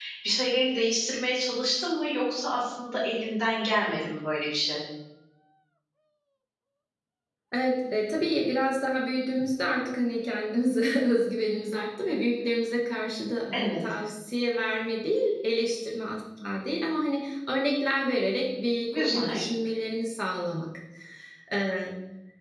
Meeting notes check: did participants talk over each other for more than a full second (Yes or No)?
No